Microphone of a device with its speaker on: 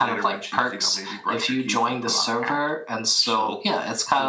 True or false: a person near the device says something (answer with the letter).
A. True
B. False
B